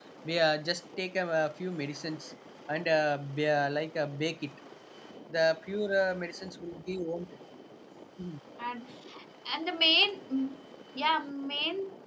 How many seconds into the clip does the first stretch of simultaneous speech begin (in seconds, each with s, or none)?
none